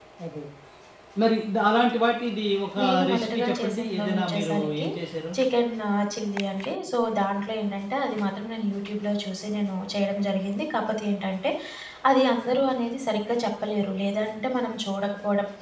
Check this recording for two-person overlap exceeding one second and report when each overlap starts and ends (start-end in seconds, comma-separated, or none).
2.8-4.9